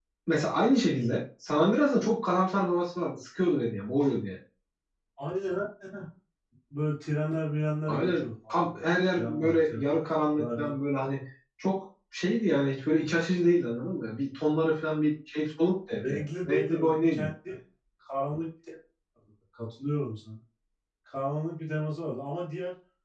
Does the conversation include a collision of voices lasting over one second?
Yes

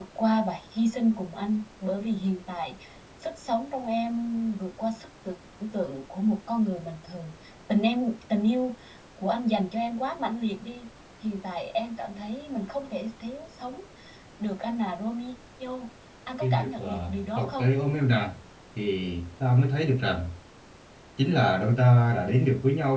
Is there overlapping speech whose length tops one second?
Yes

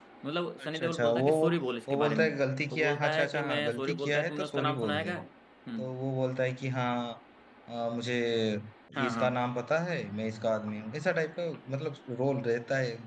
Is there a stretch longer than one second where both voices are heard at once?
Yes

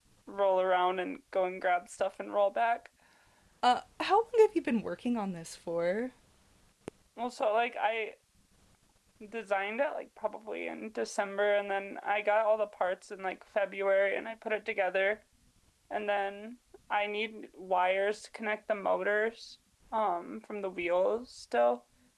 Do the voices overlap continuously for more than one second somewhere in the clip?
No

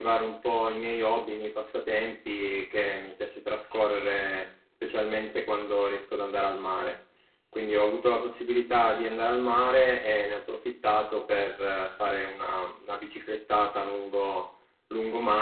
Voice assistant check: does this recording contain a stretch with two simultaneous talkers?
No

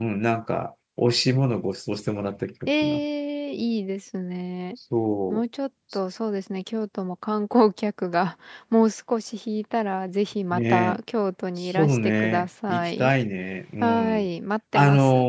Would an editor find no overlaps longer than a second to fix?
No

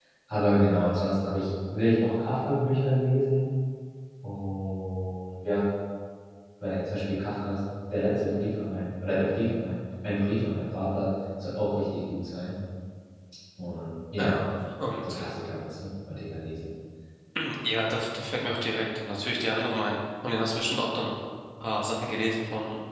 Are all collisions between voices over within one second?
Yes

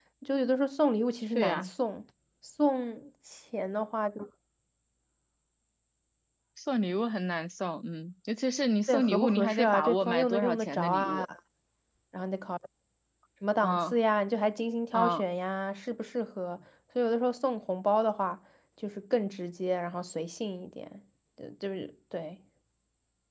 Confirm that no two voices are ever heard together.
No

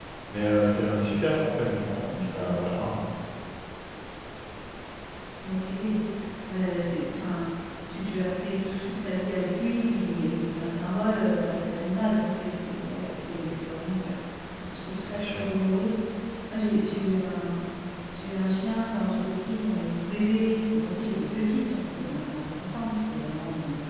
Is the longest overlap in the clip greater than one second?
No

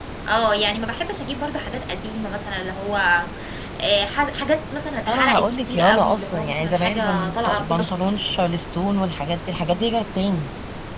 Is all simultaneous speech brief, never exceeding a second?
No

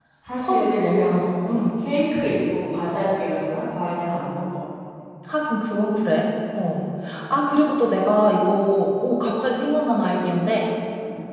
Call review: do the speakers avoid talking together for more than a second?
No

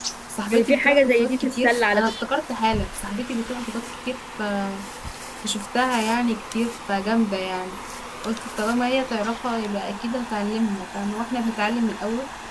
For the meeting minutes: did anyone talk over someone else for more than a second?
Yes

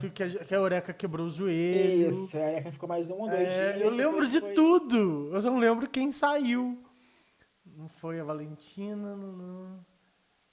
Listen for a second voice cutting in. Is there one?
Yes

